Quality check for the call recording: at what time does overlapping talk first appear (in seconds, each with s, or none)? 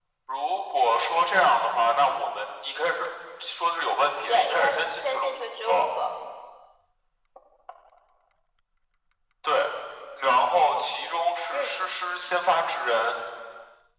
4.3 s